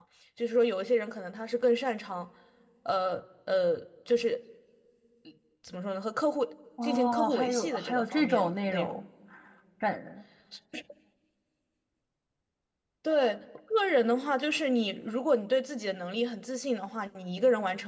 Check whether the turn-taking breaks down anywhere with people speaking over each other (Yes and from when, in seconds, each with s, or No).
Yes, from 6.8 s